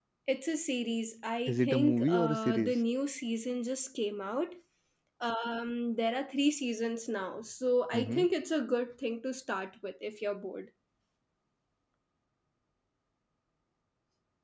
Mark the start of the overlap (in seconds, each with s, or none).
1.5 s